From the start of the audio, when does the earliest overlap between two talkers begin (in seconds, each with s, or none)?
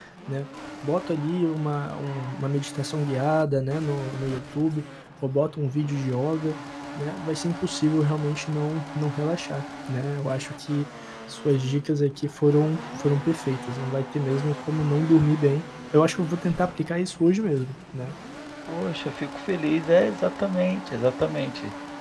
none